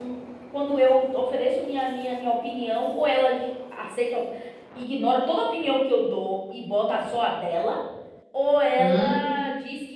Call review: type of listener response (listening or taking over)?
listening